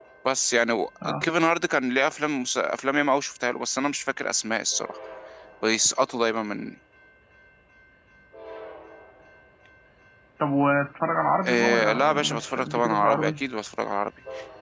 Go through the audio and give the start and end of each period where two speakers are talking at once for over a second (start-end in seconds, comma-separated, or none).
11.5-13.4